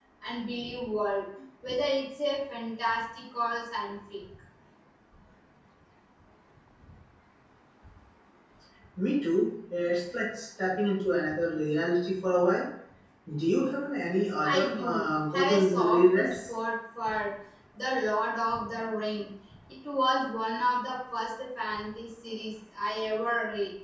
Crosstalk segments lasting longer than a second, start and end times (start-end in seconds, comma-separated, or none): 14.4-16.4